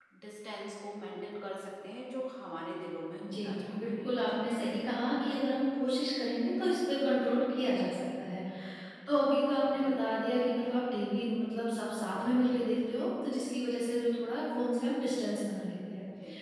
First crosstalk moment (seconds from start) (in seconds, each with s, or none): 3.2 s